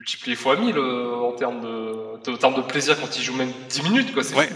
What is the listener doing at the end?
taking over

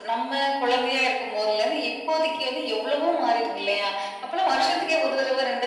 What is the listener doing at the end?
listening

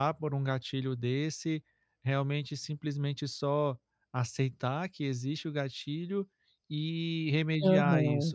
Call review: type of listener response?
listening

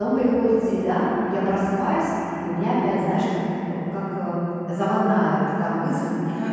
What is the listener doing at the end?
listening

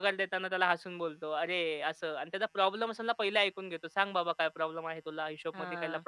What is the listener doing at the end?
listening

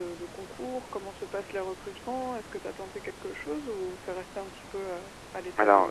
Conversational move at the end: taking over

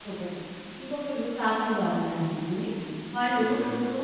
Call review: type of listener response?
listening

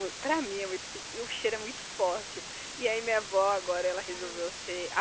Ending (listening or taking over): listening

